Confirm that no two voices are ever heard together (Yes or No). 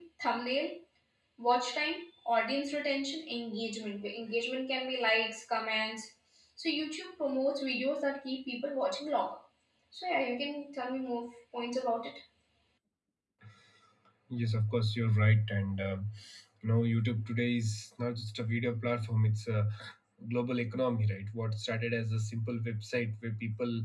Yes